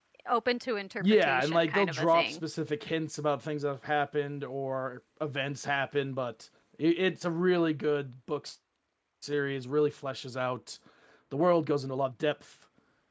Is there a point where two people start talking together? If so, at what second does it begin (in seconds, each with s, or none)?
1.0 s